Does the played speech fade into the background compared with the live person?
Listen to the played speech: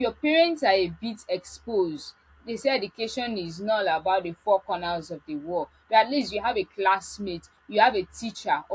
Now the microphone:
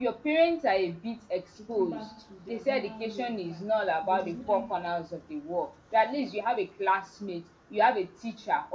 No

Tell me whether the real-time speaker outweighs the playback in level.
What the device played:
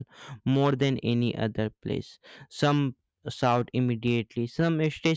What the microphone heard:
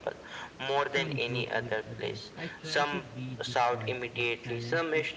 No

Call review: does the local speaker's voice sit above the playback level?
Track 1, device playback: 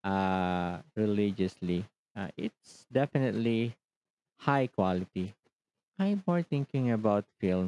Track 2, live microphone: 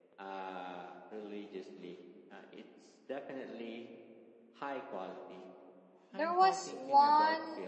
Yes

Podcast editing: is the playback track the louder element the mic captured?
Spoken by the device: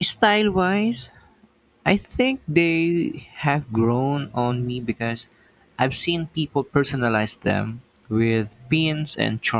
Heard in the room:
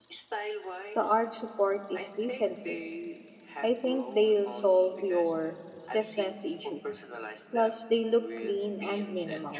No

